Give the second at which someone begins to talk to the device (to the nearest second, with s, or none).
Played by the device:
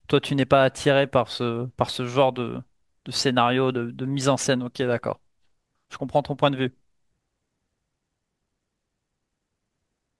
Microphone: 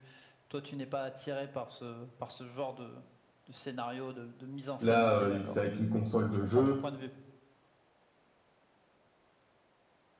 5 s